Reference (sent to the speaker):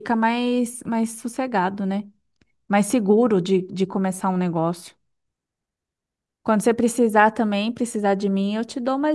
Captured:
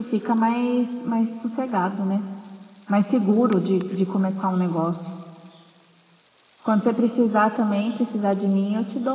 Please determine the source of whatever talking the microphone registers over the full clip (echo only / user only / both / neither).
echo only